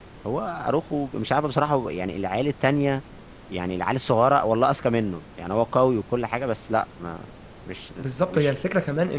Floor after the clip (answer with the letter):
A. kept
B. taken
B